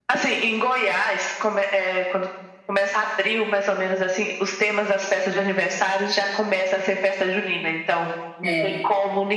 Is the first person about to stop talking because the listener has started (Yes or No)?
No